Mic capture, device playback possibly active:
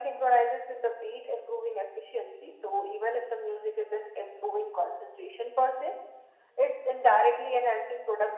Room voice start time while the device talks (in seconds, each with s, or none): none